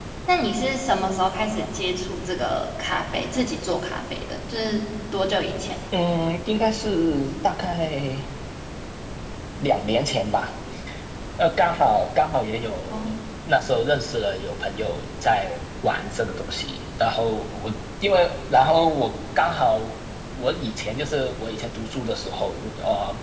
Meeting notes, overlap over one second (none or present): none